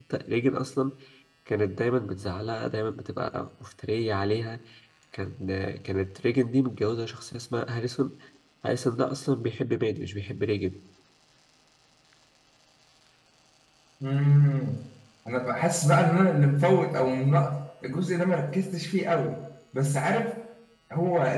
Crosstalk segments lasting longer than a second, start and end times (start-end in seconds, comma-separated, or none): none